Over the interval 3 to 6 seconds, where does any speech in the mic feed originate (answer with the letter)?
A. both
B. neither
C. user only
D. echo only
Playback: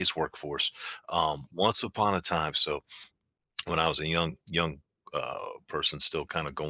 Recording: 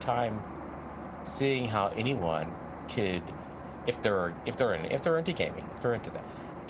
C